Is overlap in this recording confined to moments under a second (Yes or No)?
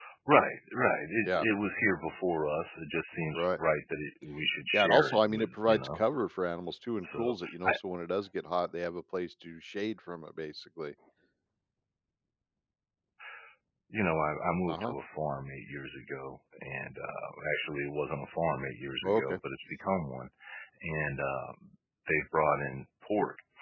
No